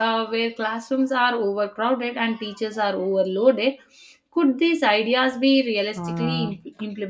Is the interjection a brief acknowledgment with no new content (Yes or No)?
No